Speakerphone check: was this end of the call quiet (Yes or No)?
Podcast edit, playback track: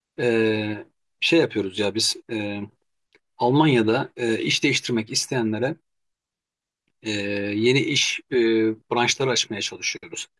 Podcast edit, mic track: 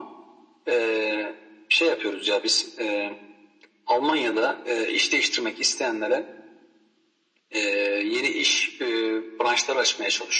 Yes